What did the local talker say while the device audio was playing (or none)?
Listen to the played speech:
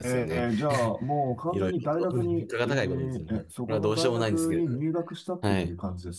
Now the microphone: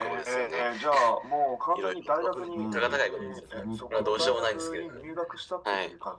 はい。まその時は、